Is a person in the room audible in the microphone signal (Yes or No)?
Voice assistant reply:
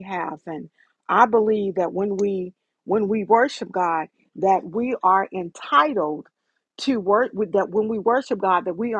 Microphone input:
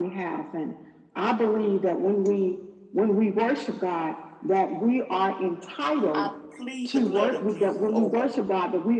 Yes